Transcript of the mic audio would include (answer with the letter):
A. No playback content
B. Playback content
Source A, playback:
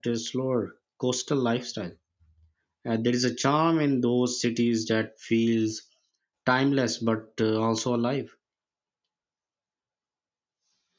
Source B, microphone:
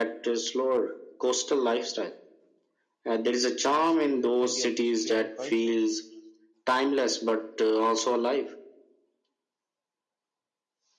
B